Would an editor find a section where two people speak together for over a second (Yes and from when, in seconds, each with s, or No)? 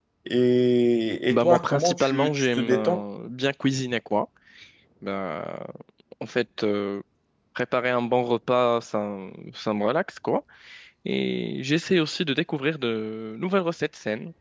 Yes, from 1.3 s